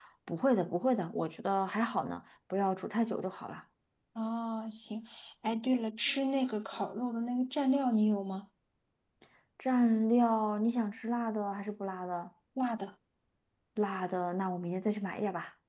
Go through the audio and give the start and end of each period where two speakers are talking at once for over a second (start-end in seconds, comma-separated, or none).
none